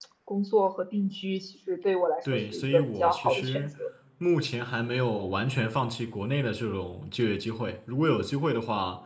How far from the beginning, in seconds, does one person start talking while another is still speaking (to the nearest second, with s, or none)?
2 s